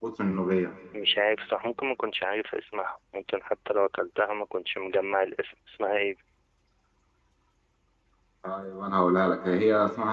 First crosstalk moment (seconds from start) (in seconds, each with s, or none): none